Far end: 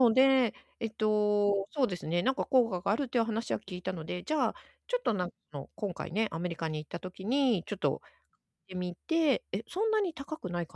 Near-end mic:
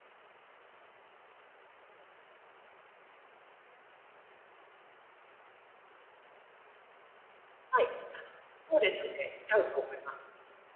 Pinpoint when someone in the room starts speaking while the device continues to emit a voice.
7.7 s

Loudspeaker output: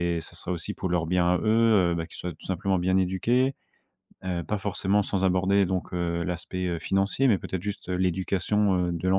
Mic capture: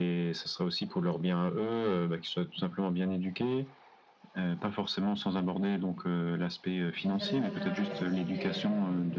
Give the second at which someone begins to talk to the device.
6.9 s

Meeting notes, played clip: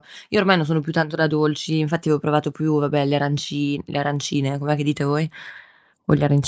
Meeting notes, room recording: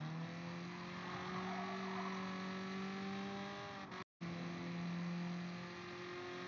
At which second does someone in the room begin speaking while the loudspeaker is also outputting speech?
none

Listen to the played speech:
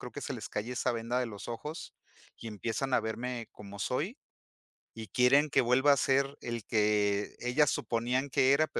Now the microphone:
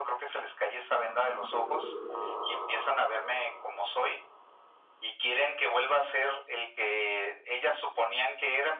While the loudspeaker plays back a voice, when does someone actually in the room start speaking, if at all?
none

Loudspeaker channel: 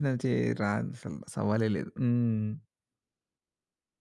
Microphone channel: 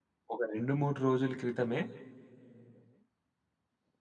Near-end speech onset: 0.3 s

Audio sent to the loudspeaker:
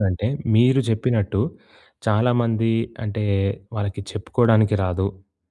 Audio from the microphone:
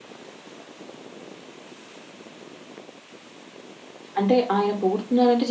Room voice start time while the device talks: 4.2 s

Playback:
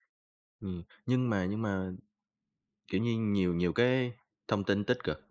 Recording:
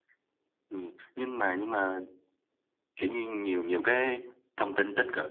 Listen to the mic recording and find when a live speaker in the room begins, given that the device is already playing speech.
none

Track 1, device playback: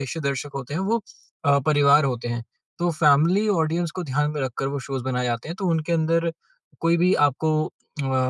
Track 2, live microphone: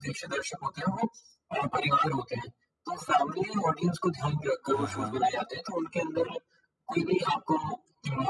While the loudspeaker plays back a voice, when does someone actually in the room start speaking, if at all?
4.7 s

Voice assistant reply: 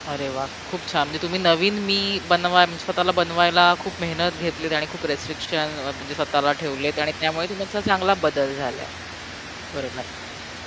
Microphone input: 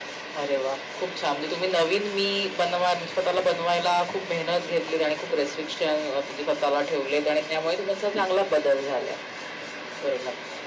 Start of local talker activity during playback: none

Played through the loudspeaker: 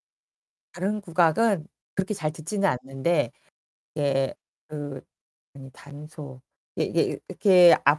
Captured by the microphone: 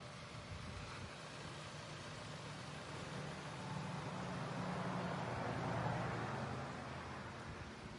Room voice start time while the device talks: none

